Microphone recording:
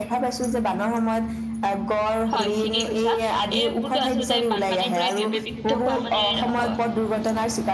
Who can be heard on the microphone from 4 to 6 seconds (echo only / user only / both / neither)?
both